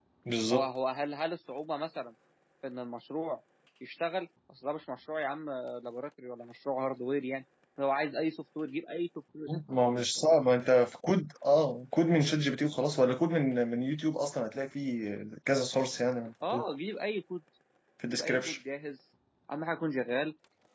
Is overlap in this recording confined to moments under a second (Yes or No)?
Yes